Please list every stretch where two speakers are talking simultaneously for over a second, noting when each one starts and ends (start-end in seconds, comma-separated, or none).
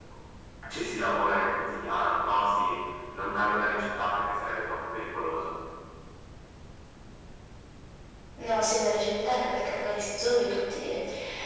none